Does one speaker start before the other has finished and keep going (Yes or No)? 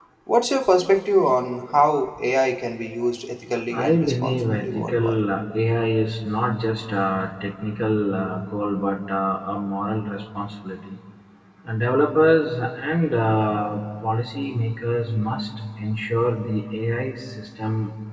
Yes